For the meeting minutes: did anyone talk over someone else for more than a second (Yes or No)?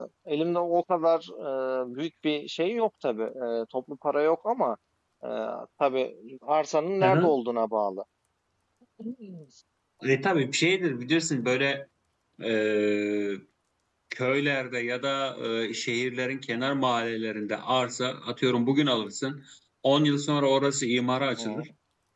No